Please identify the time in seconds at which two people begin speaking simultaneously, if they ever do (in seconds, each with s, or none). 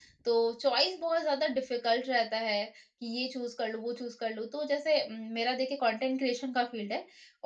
none